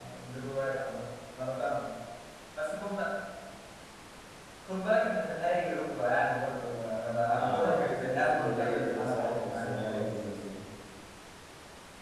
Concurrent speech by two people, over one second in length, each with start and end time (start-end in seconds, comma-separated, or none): 7.4-10.1